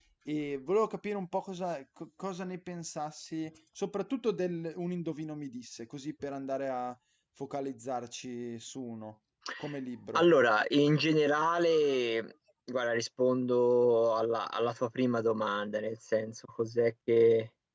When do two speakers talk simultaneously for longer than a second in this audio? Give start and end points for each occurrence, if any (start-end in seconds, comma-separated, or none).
none